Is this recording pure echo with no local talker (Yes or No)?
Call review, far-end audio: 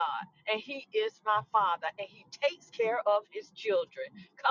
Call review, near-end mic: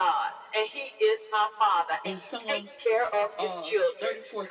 No